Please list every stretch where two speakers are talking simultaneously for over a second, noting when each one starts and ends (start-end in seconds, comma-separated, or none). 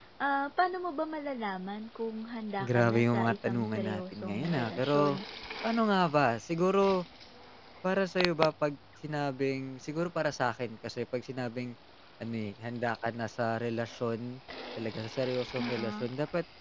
2.6-5.1